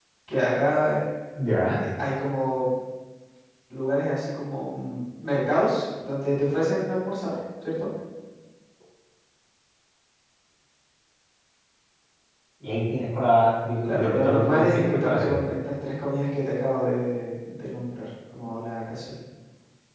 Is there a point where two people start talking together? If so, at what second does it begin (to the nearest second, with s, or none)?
14 s